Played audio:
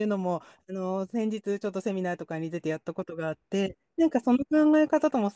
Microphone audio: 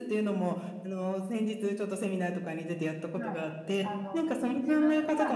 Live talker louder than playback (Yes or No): No